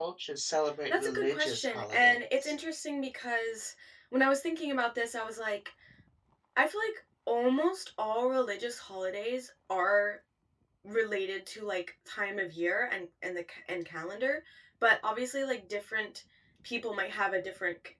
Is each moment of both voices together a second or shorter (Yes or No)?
No